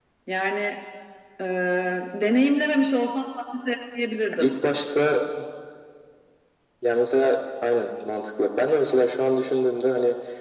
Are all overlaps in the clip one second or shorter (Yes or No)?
Yes